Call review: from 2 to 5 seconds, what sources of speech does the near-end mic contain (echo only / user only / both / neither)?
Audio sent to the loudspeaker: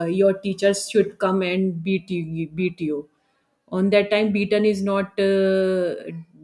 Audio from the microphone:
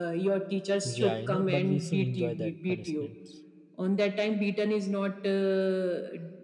both